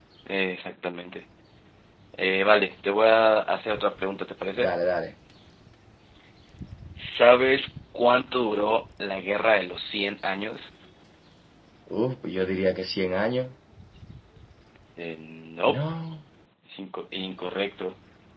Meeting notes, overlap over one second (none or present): none